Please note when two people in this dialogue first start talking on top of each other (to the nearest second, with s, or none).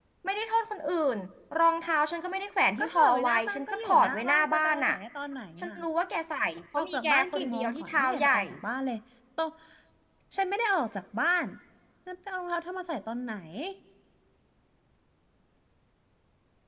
3 s